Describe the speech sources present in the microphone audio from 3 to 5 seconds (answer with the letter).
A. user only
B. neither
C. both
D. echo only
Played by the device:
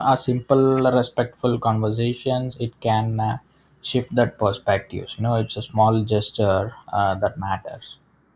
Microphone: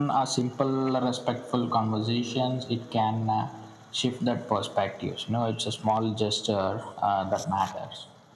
D